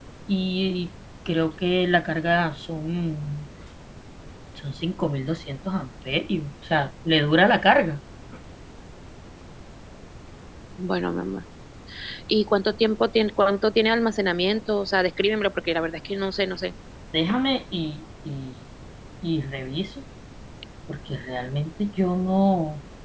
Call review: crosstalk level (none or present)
none